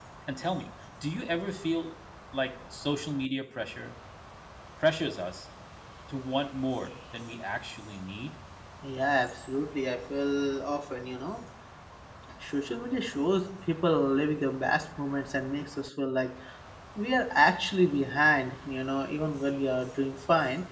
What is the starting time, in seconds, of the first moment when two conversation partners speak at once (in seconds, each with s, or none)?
none